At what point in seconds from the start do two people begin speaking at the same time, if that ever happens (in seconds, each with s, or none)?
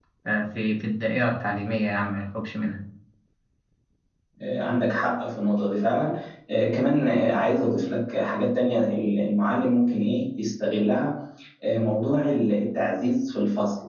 none